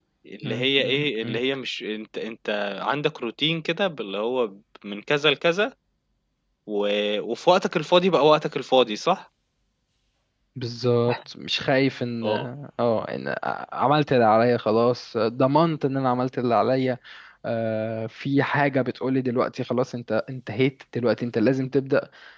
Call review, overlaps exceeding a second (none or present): none